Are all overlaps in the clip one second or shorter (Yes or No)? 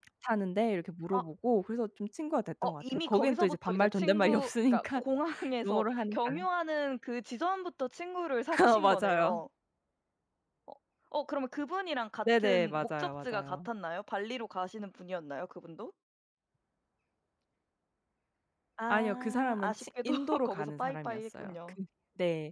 No